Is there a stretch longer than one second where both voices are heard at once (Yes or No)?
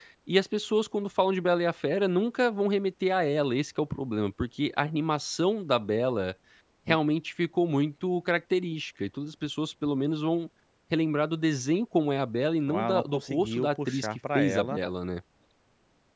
Yes